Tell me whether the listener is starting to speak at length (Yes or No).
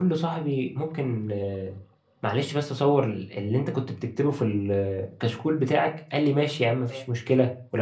No